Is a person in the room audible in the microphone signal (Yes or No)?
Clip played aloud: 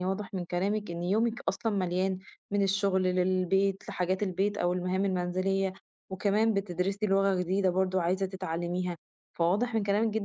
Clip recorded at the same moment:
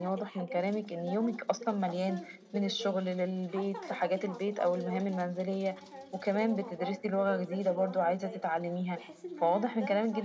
Yes